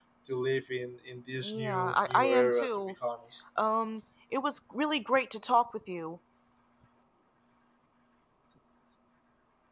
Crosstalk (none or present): present